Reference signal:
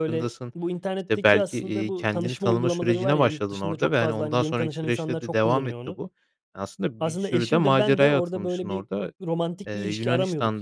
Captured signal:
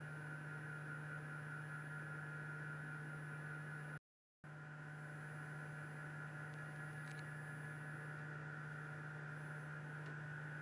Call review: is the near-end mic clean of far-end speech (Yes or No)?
Yes